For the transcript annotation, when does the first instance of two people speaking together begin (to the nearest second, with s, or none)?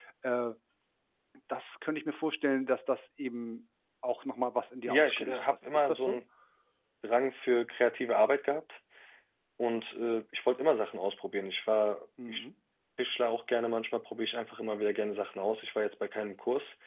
5 s